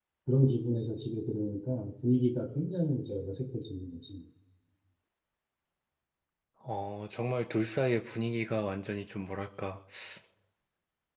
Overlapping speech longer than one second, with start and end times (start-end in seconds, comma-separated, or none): none